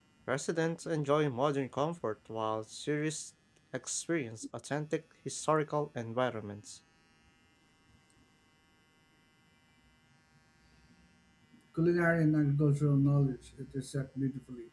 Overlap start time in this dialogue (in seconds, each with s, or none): none